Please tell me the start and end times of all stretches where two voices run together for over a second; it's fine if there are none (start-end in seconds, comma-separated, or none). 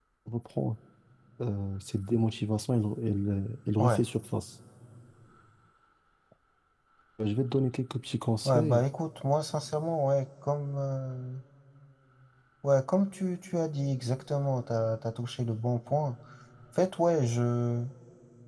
none